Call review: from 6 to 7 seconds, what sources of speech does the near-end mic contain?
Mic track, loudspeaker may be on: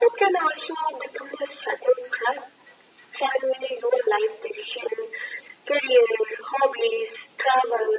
echo only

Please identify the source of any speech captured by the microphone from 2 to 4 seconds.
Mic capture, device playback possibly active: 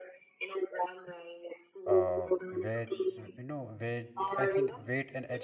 both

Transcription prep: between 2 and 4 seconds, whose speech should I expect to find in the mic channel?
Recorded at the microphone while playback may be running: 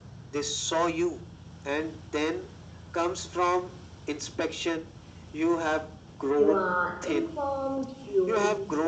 echo only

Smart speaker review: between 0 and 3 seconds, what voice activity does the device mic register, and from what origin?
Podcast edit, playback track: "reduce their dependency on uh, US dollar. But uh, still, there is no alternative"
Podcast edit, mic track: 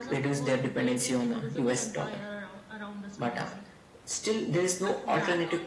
both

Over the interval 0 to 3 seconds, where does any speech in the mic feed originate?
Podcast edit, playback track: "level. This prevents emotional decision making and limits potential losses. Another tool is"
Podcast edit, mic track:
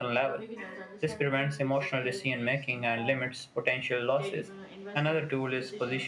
both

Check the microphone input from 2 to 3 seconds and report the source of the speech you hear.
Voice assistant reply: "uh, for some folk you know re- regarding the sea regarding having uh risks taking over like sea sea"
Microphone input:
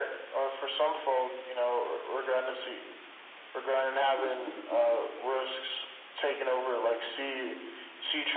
echo only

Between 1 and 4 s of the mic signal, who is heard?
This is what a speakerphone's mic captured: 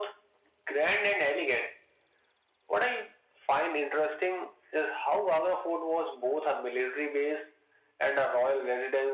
echo only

